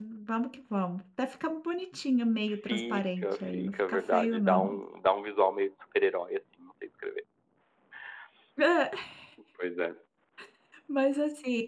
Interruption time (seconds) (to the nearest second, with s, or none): 3 s